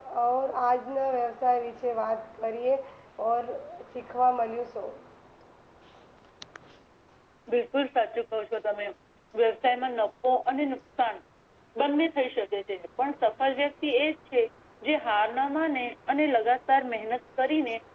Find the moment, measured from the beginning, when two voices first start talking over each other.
none

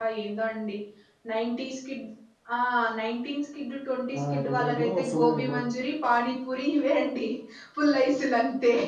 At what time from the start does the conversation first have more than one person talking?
4 s

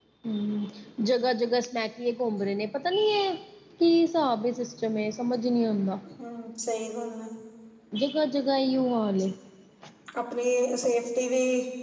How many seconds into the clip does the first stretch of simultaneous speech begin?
none

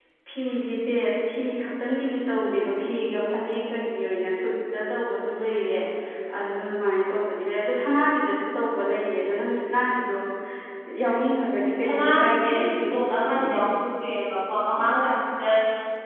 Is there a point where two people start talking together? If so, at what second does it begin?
12 s

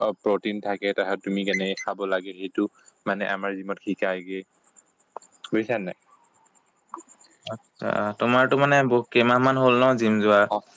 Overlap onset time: none

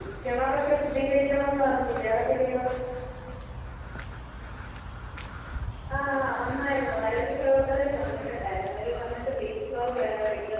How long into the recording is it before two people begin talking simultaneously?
none

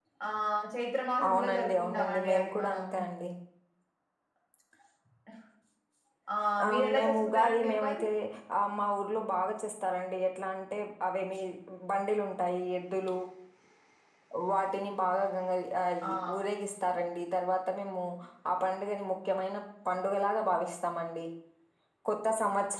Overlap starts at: 1 s

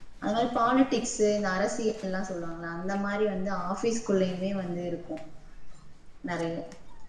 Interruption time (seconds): none

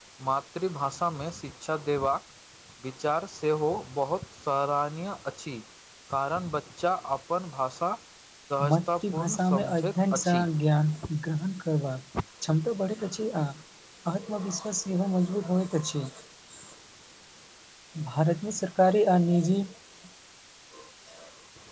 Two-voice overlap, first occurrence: 9 s

